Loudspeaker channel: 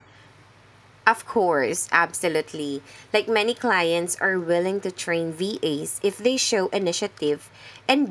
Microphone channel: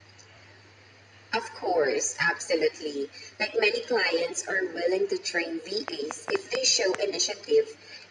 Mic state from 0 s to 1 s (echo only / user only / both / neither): neither